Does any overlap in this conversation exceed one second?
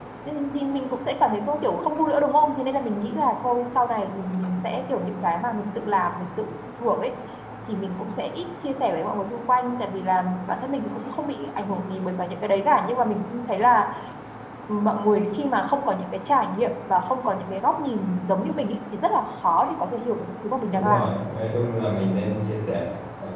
No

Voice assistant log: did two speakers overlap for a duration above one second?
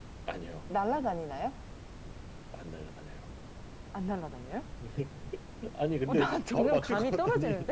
Yes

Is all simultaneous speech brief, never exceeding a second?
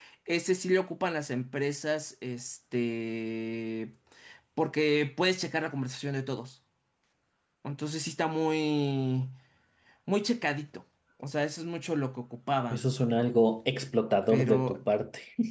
Yes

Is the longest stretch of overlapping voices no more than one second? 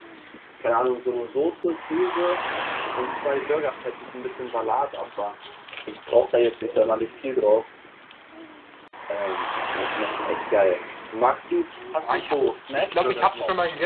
No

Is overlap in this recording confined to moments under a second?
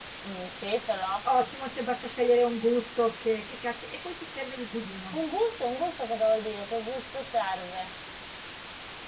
Yes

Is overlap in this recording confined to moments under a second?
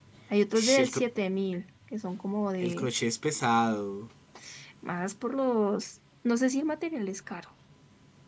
Yes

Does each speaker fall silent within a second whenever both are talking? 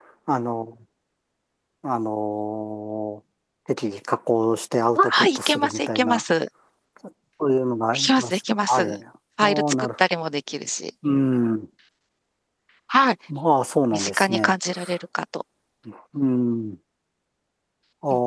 No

